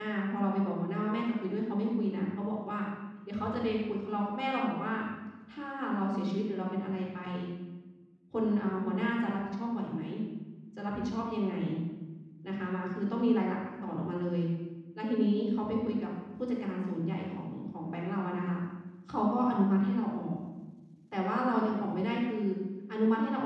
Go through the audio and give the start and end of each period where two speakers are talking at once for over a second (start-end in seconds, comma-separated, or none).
none